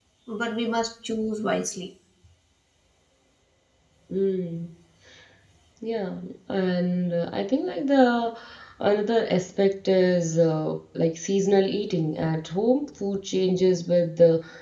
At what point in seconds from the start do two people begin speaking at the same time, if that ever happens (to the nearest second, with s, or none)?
none